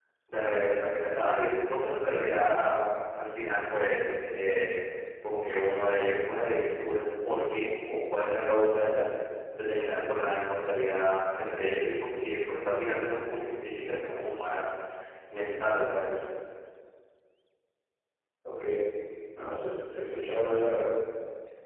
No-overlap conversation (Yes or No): Yes